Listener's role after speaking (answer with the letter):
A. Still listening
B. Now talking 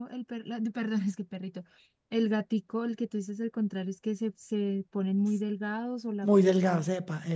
B